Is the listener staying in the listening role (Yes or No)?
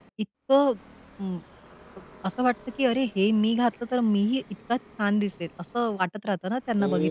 No